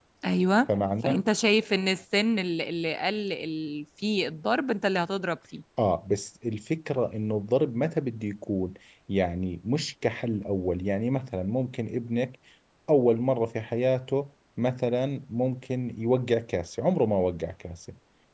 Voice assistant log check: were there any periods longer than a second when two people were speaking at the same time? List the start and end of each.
none

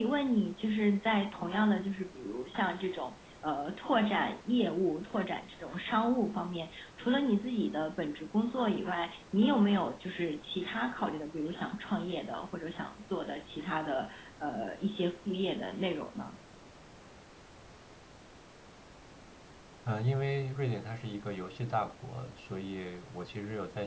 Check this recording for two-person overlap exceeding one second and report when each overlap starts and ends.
none

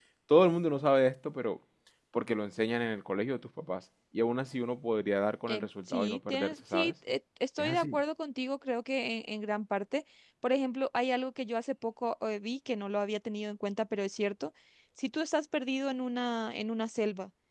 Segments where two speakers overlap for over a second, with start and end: 5.5-6.9

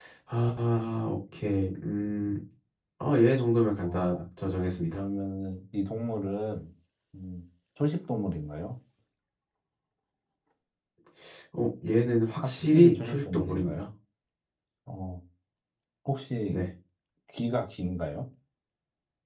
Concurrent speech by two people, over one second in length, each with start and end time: 12.4-13.9

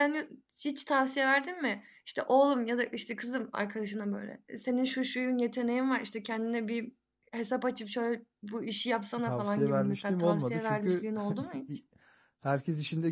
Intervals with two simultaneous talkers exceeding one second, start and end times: 9.2-11.0

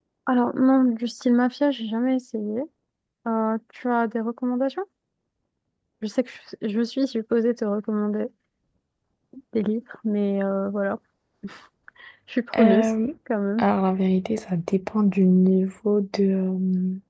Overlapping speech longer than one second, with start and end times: none

